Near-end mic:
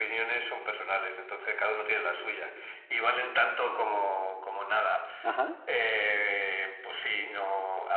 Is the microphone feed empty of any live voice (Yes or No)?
No